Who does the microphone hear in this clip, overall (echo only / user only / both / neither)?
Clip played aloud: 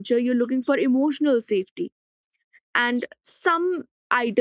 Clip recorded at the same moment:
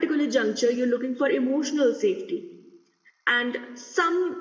echo only